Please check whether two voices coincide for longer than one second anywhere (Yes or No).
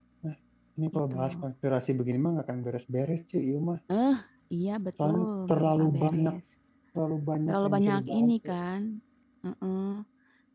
Yes